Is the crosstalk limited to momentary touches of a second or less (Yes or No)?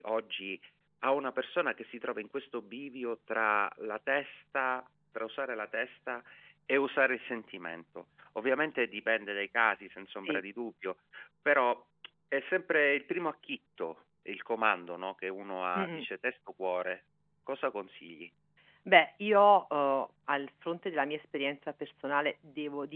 Yes